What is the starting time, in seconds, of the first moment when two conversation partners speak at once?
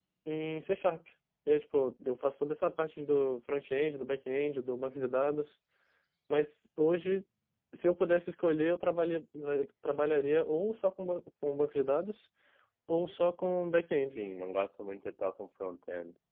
none

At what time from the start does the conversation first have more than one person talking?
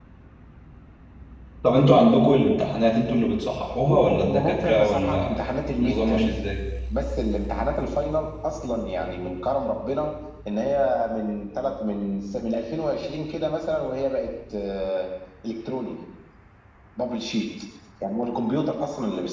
4 s

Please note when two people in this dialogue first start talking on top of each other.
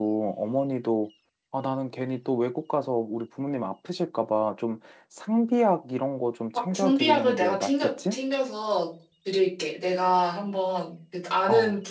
7 s

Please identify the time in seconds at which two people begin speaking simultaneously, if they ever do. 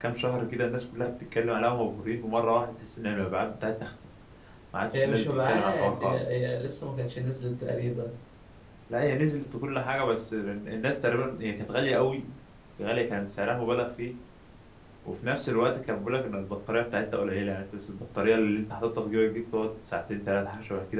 5 s

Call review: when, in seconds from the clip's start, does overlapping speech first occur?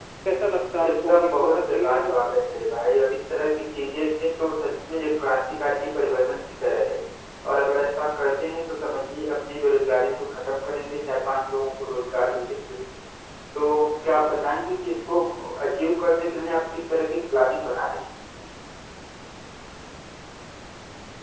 1 s

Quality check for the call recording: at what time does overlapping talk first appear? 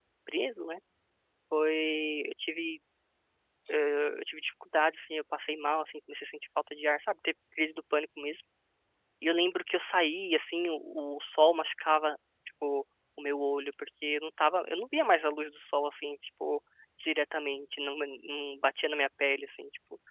none

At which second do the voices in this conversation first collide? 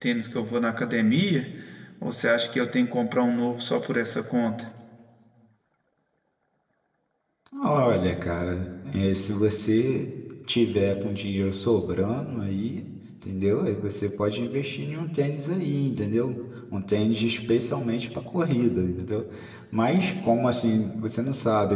none

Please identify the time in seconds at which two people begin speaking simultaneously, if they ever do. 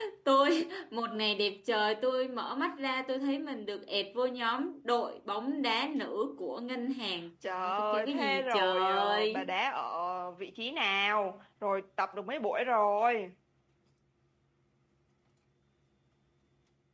7 s

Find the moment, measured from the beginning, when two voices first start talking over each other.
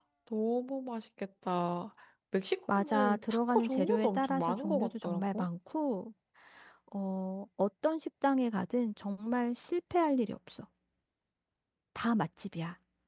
3 s

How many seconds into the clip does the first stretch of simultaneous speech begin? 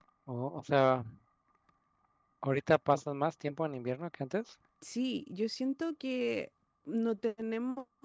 none

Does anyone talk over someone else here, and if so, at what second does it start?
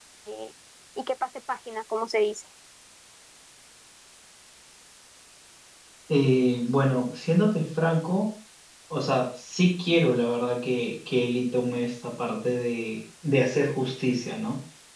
none

